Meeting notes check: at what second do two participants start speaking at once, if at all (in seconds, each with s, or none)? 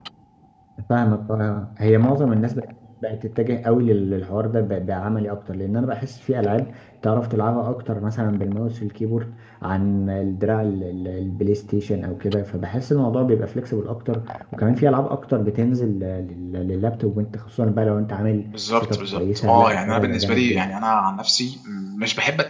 18.8 s